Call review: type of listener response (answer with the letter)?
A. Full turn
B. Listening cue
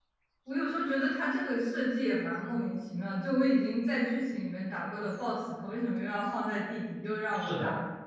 A